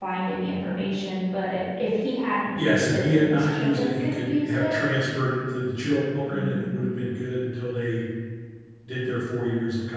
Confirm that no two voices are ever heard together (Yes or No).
No